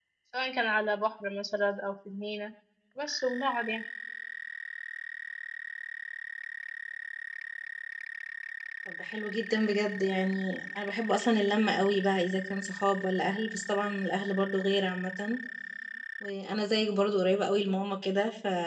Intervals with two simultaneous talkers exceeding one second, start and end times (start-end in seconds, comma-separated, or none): none